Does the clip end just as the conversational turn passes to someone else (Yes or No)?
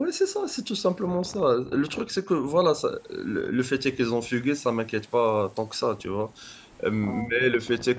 No